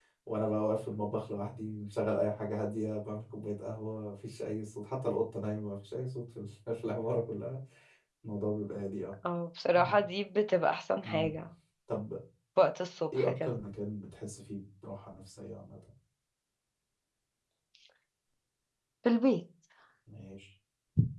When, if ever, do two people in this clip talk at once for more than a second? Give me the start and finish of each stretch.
none

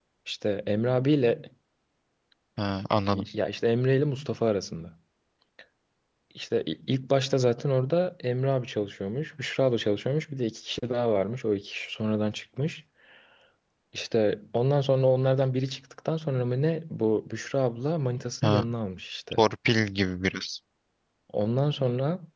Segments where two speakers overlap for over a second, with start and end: none

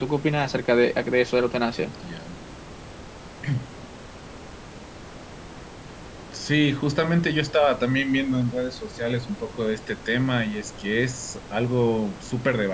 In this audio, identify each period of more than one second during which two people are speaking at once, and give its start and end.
none

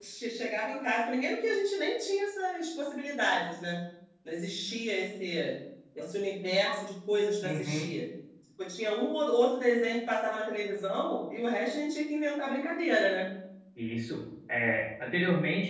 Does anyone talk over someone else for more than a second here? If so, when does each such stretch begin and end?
none

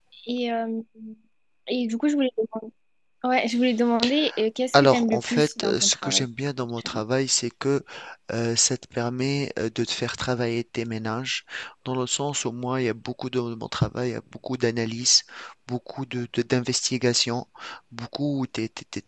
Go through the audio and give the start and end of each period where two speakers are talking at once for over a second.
4.7-6.2

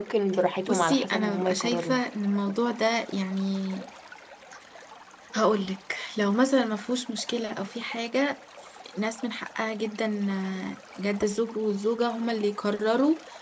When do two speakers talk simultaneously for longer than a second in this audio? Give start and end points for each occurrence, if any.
0.7-1.9

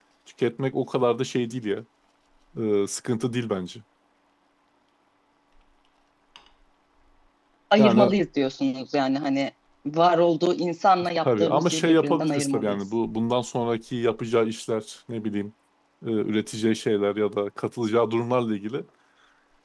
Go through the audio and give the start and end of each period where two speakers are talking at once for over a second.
11.2-12.8

